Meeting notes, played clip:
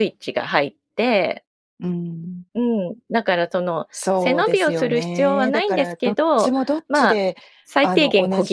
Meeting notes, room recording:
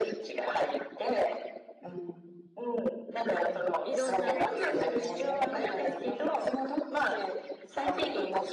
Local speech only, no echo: うん。いろんなつた

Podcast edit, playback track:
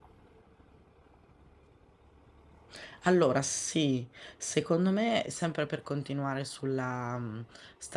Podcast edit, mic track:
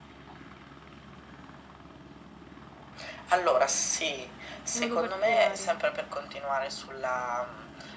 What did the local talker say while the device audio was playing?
in modo particolare?

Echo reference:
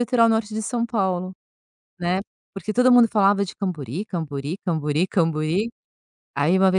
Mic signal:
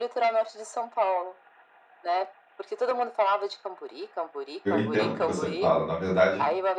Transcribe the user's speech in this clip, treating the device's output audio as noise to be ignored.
eu entendo o que você fala. Na verdade,

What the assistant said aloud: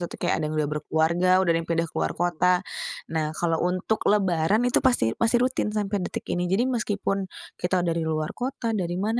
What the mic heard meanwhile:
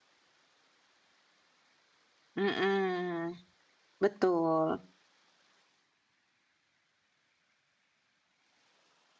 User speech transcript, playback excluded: Mhm, betul.

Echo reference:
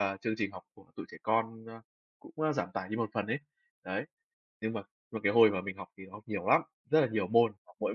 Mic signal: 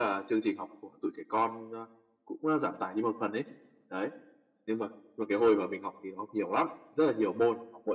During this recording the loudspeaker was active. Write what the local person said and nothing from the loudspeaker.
none

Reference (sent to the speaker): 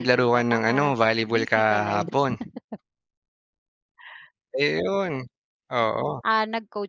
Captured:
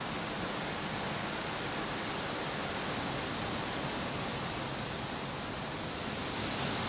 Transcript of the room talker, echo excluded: none

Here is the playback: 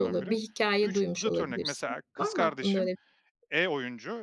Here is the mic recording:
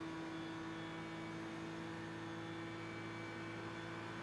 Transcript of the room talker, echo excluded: none

